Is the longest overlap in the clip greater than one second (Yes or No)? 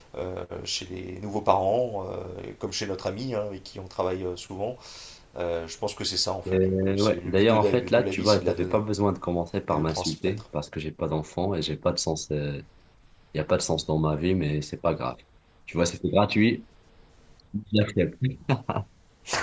Yes